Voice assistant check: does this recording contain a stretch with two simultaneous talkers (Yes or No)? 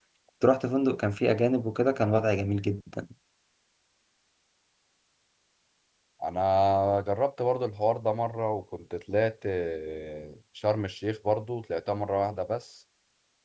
No